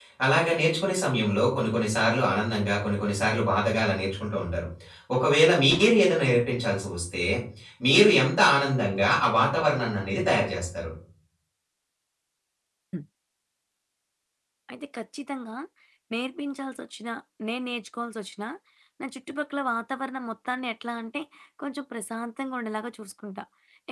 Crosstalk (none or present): none